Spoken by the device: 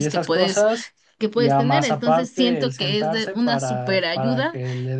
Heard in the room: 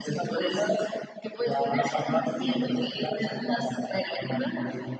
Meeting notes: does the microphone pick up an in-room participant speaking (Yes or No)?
No